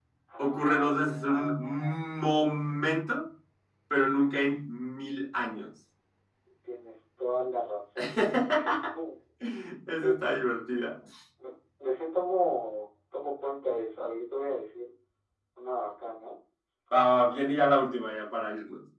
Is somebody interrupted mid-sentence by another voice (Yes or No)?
Yes